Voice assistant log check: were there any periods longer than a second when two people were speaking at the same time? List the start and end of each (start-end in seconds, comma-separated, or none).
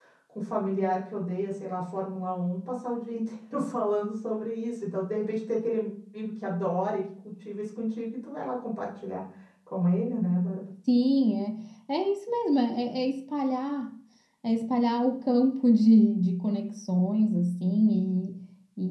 none